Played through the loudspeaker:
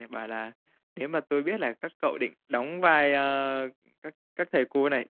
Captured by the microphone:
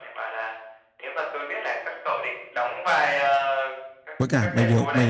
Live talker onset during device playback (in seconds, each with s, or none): 4.2 s